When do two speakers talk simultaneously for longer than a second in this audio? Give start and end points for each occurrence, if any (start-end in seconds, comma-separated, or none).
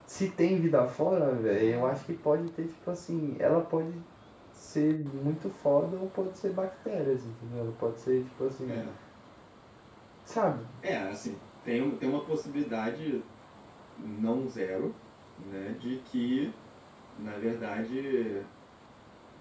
none